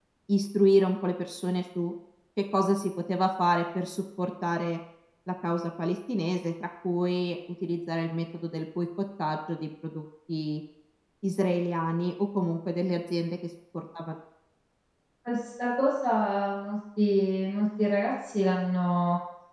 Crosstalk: none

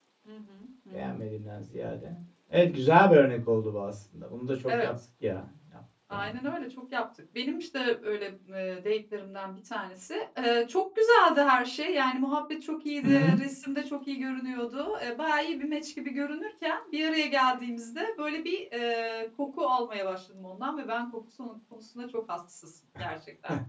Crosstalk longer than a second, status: none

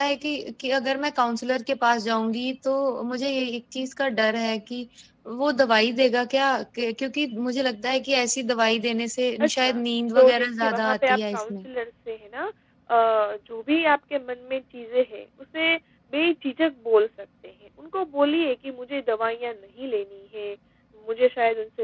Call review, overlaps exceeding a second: present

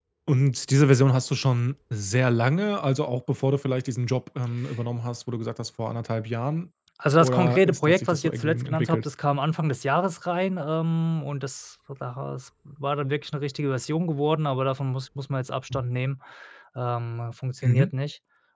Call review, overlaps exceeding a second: present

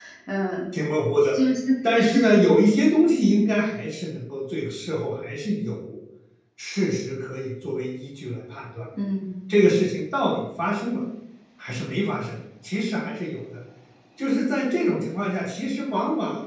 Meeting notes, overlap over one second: none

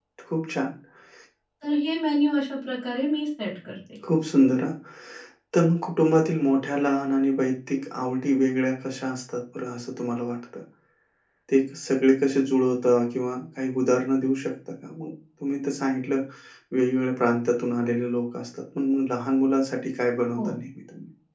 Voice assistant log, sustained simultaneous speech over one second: none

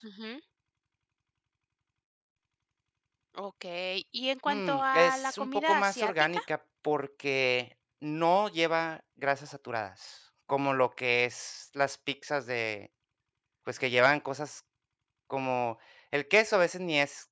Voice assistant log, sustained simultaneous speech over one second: present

